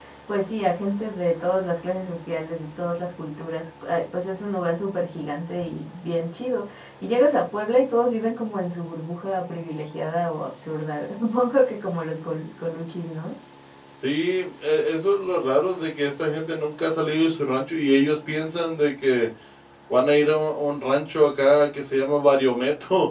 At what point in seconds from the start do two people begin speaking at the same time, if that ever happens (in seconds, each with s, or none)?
none